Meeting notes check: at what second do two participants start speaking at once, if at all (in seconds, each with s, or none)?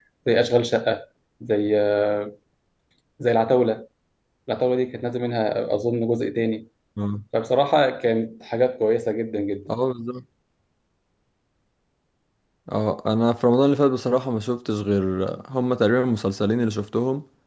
none